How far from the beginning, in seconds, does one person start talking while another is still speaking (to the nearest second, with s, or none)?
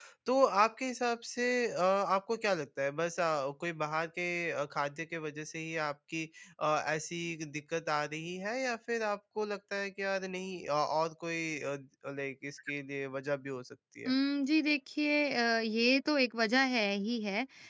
none